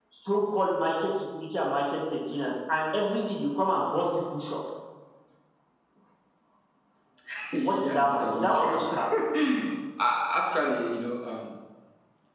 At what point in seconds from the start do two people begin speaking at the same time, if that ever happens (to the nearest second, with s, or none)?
8 s